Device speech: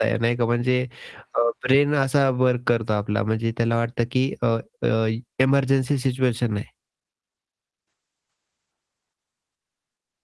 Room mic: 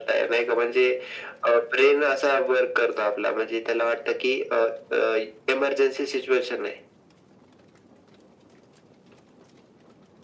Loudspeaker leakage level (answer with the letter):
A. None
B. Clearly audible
B